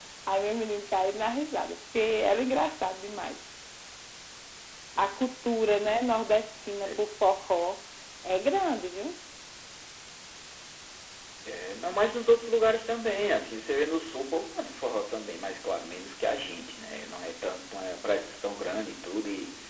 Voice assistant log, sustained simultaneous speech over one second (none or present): none